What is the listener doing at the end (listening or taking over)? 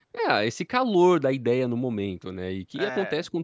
listening